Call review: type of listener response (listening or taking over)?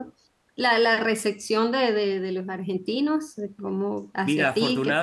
taking over